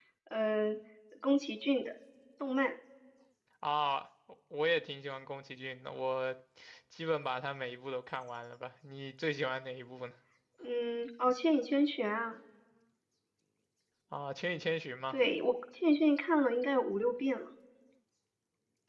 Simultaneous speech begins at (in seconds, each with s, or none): none